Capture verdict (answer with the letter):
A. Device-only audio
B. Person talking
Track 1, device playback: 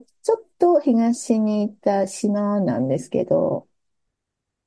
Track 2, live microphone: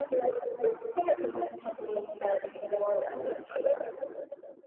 A